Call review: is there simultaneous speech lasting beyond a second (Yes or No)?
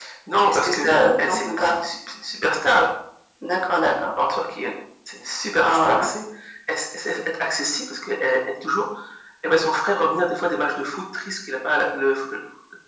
Yes